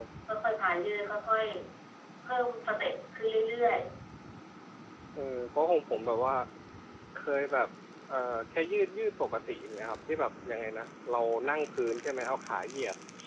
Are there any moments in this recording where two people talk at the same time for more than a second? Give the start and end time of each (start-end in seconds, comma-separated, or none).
none